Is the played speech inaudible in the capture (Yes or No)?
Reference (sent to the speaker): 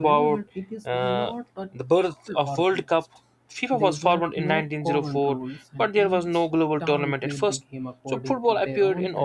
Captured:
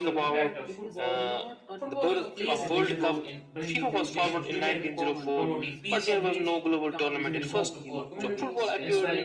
No